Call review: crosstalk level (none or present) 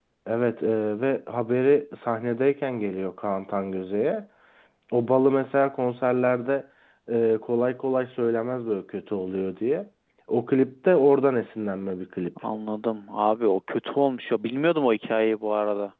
none